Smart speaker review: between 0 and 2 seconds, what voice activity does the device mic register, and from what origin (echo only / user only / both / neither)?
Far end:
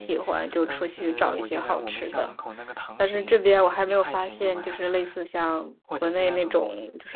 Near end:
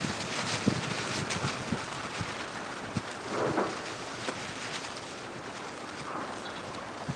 neither